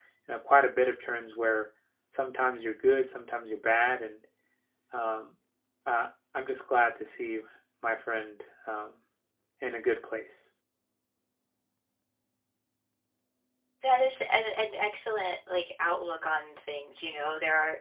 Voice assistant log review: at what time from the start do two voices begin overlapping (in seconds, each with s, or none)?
none